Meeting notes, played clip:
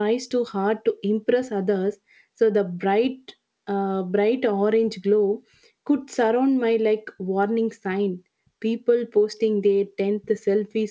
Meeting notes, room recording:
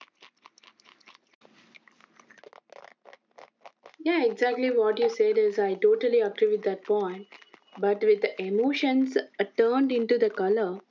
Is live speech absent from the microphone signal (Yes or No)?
No